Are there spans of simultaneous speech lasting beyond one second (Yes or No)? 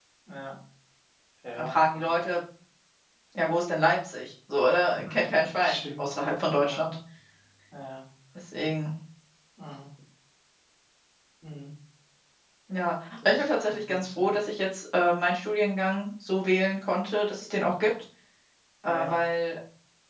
Yes